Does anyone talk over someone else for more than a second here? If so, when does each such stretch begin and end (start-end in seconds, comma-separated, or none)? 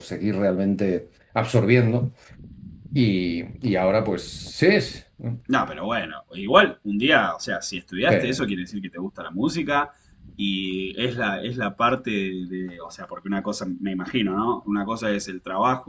none